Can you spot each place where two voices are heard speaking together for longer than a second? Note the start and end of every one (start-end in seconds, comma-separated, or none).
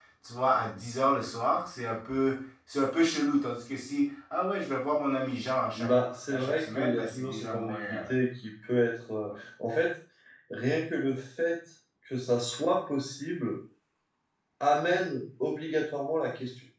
6.3-8.0